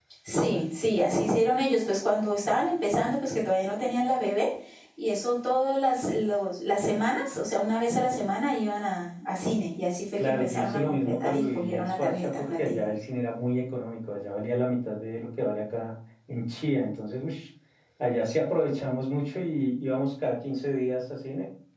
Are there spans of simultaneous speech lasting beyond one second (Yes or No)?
Yes